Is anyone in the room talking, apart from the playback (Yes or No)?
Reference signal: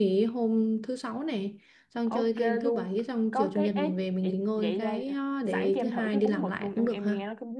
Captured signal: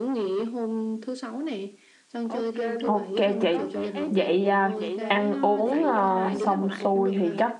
Yes